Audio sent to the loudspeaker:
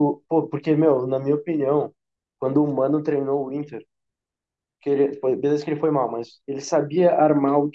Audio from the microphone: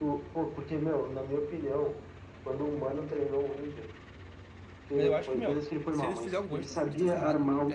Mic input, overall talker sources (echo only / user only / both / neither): both